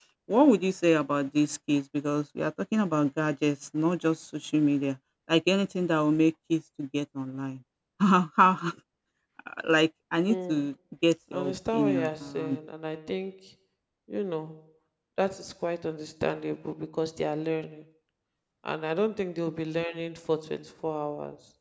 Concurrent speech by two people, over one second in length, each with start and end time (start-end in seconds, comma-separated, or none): 11.3-12.6